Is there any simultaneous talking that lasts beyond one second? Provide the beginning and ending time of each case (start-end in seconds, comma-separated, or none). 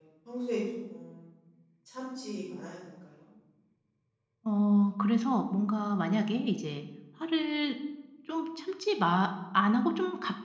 none